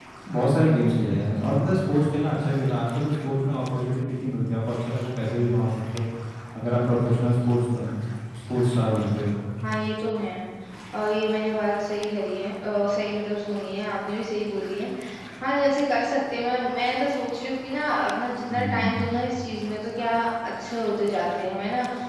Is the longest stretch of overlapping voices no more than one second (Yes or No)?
Yes